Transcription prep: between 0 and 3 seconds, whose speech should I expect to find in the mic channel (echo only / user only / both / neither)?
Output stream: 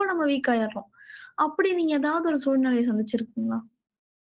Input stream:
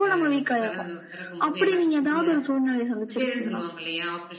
both